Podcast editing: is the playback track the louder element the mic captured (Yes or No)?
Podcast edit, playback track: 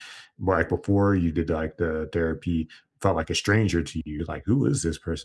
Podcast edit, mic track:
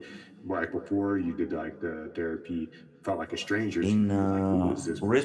No